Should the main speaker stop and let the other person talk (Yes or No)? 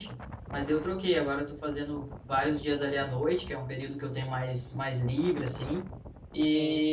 No